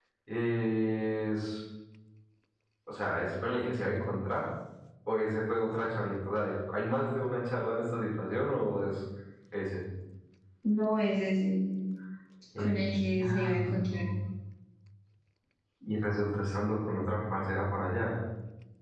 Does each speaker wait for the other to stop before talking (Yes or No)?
No